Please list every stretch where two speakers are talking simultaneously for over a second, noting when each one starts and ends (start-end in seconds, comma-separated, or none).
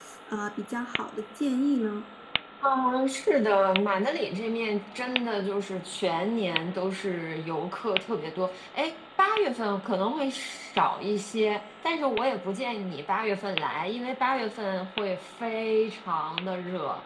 none